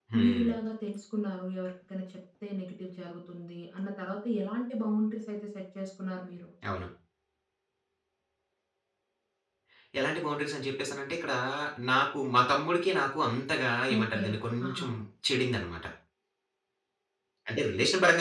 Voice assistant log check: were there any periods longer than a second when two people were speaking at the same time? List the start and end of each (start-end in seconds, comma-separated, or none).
none